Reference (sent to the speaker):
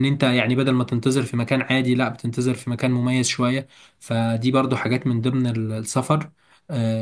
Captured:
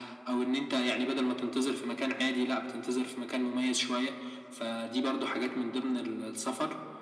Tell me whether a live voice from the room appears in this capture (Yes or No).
No